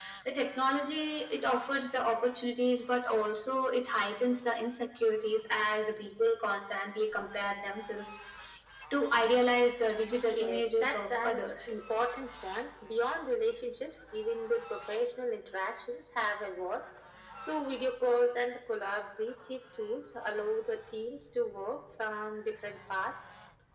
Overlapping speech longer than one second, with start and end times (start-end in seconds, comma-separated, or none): 10.3-11.7